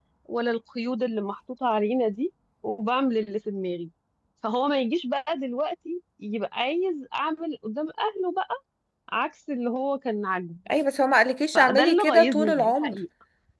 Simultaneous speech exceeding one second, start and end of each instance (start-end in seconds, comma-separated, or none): 11.5-13.0